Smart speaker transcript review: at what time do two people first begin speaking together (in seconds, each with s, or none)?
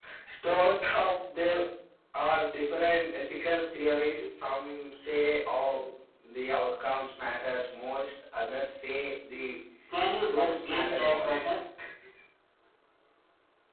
10.2 s